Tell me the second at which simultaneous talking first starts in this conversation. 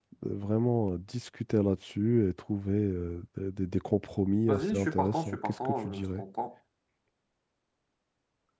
4 s

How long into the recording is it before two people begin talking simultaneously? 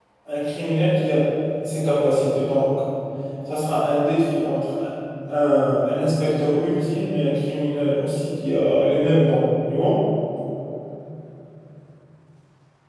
none

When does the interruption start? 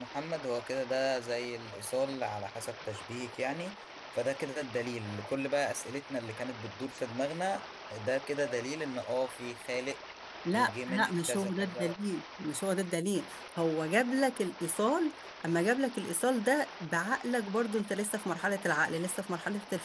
11 s

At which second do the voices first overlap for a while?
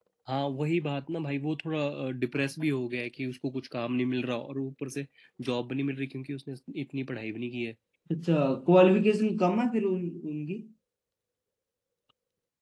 none

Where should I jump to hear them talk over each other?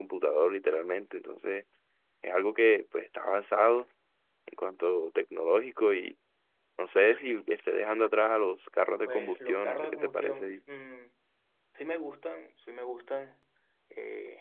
9 s

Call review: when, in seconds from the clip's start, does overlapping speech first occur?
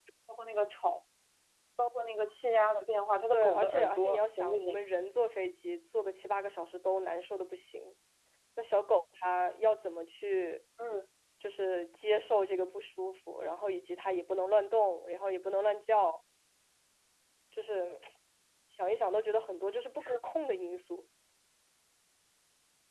3 s

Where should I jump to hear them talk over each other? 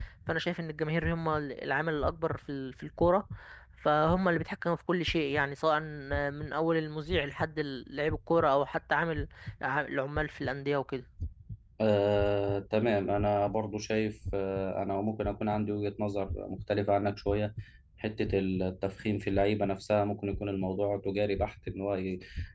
none

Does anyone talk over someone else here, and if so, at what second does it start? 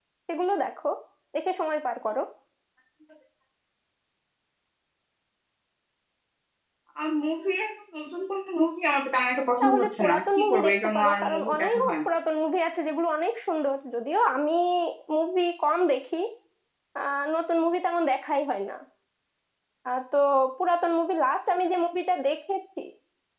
10 s

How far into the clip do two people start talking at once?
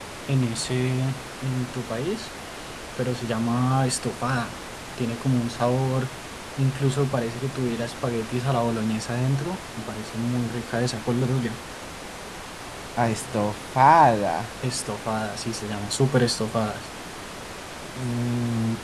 none

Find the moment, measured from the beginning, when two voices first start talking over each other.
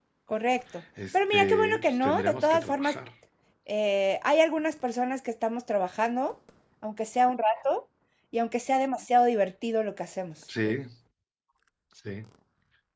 1 s

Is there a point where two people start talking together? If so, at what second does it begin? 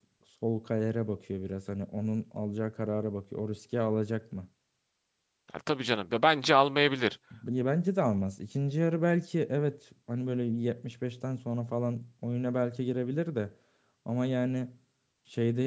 none

